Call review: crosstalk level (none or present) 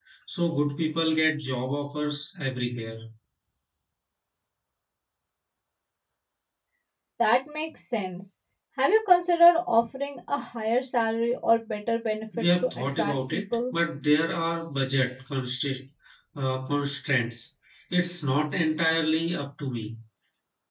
present